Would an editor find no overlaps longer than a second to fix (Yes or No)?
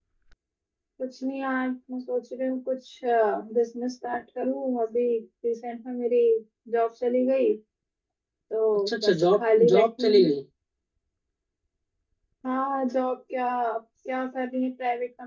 No